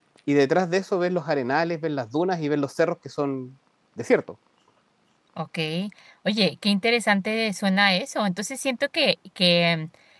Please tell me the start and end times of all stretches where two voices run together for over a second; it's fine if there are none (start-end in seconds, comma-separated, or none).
none